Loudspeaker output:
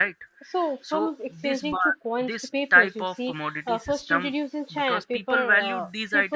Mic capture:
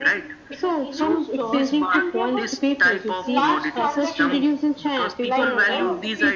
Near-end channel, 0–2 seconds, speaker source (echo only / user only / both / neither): both